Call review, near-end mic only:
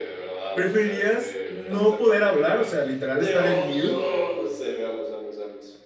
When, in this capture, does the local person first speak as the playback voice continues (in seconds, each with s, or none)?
0.5 s